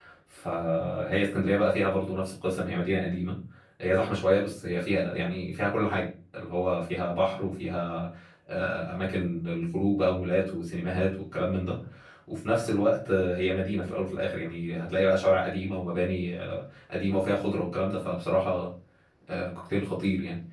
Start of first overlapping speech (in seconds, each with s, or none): none